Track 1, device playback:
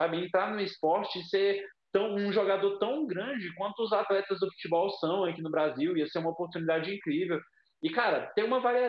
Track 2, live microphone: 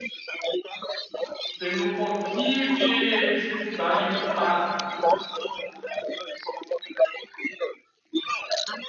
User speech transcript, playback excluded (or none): tendo um pouquinho de dificuldade em montar